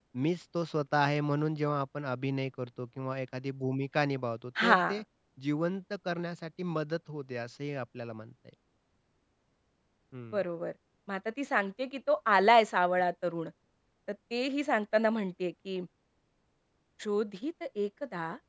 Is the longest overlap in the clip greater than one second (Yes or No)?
No